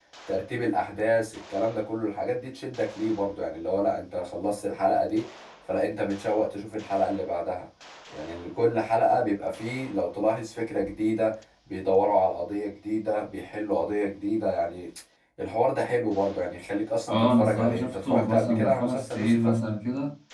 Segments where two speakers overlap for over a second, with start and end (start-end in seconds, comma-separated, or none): 17.1-19.6